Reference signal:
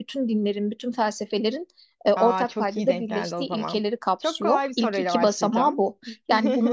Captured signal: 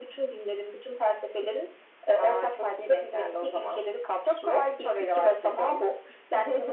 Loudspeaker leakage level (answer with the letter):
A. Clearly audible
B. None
A